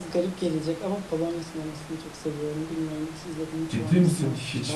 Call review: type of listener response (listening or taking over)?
taking over